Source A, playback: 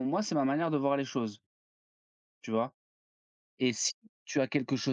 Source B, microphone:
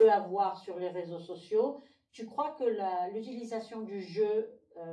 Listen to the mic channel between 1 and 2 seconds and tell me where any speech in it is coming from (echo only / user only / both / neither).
user only